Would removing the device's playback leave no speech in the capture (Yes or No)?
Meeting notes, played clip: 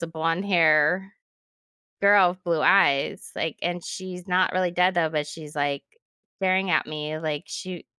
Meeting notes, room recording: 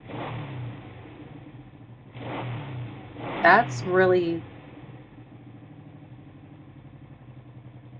No